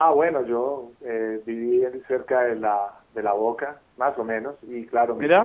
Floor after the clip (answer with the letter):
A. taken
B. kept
B